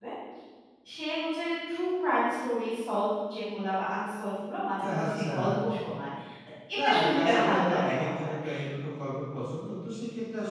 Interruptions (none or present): present